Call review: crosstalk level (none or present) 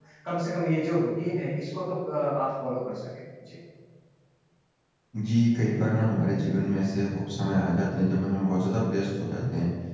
none